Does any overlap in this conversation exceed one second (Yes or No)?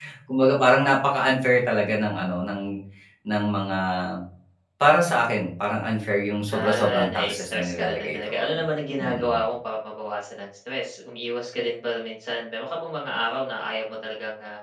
Yes